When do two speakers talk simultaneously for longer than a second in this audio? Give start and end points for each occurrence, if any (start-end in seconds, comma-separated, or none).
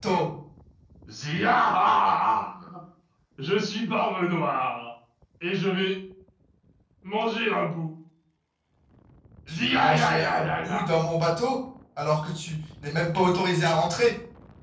9.5-10.8